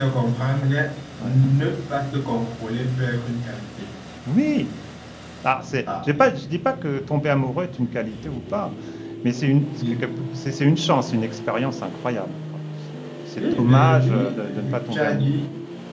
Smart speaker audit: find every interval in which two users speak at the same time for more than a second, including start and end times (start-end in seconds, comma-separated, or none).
13.4-15.4